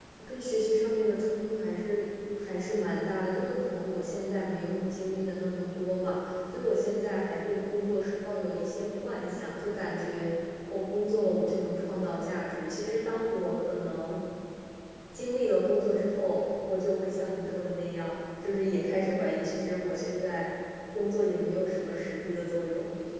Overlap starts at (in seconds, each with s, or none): none